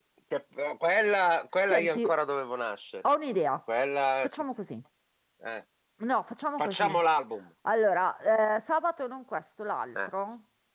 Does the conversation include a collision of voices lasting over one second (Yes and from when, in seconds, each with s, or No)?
No